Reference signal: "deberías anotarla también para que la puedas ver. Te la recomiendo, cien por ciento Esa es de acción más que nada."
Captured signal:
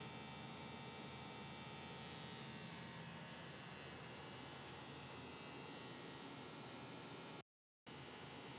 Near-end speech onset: none

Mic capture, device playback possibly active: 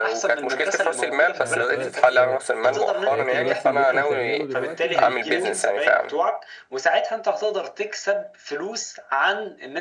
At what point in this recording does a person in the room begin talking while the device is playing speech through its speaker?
1.4 s

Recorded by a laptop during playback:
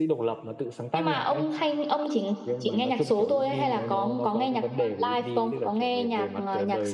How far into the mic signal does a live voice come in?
none

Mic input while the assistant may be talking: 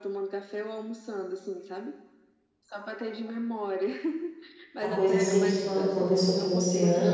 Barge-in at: 4.8 s

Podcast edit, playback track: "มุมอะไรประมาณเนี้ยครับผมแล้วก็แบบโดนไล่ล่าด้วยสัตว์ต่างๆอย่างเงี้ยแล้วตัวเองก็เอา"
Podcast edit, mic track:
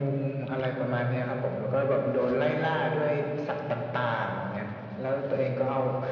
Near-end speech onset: none

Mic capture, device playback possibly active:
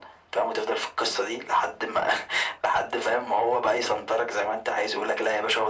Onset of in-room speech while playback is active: none

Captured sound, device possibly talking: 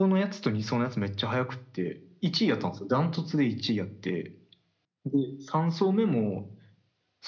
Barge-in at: none

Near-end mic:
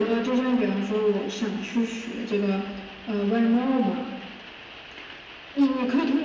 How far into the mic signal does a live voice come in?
none

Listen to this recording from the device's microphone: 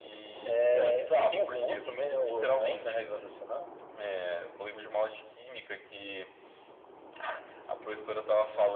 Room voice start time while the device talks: none

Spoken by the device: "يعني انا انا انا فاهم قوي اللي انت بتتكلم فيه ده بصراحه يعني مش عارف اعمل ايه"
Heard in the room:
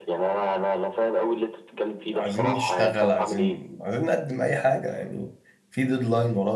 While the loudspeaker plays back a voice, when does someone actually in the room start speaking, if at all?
2.1 s

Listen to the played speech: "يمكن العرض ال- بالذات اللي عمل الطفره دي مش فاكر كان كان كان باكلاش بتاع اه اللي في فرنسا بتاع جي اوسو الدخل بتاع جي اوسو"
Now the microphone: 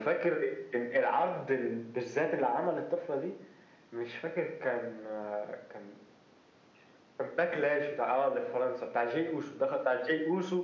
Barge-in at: none

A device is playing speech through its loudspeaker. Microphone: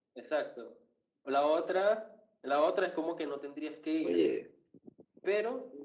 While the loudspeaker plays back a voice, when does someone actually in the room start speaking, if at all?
4.0 s

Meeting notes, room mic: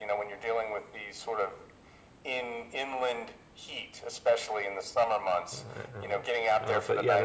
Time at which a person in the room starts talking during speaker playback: 5.5 s

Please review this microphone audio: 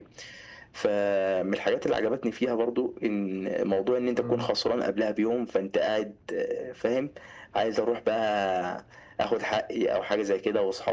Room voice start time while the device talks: 4.2 s

